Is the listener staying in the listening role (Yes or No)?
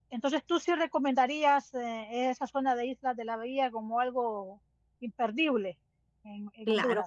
No